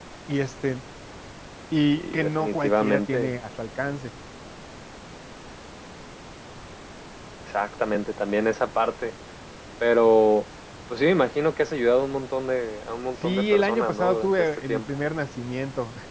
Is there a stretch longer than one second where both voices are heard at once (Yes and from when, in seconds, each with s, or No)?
Yes, from 2.0 s